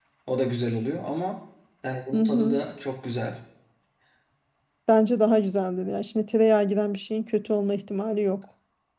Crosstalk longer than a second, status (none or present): none